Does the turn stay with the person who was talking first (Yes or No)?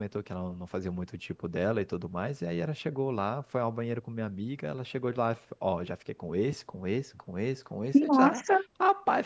Yes